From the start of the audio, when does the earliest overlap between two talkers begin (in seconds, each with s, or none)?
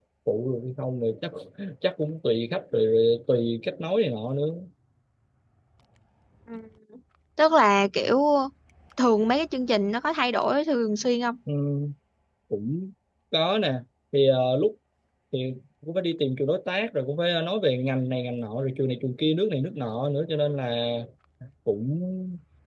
none